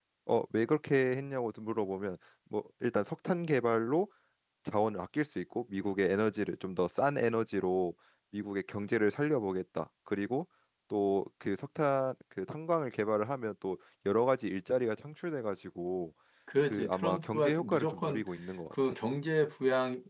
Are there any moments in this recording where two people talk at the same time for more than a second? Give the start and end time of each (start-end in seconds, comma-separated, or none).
16.6-18.2